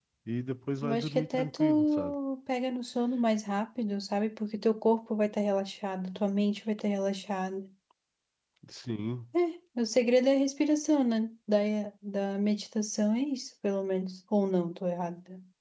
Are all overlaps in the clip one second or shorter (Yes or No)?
No